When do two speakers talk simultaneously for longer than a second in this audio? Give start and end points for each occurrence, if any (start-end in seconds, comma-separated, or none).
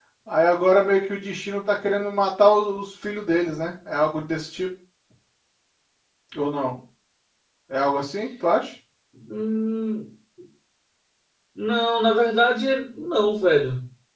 none